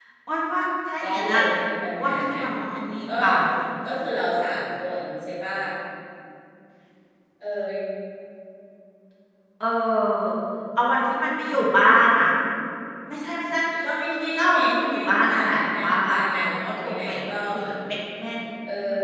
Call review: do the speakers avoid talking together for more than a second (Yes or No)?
No